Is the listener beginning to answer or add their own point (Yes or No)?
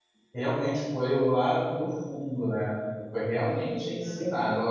No